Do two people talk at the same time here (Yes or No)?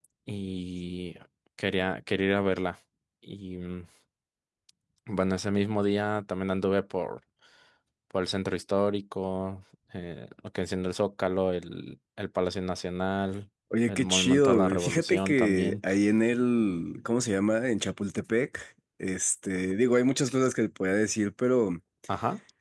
Yes